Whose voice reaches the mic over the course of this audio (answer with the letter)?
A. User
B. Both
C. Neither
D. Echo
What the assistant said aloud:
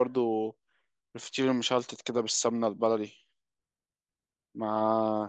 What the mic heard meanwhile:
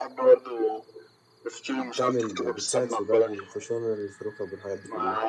B